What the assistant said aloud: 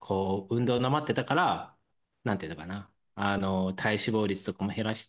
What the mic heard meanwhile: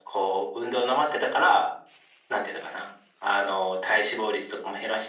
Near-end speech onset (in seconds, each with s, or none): none